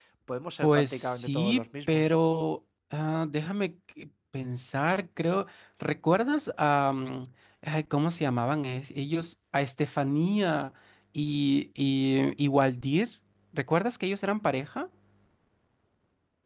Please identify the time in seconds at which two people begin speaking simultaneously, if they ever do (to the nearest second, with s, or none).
1 s